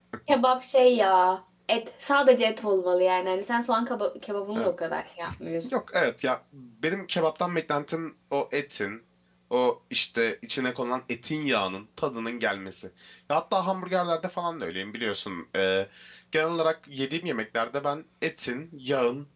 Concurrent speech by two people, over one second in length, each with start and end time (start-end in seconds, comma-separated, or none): none